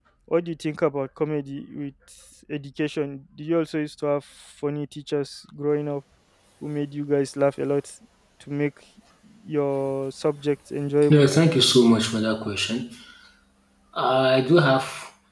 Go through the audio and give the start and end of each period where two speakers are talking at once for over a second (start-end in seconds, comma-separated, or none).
none